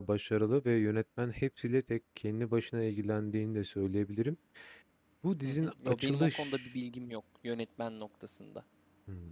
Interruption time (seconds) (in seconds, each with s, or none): 5.4 s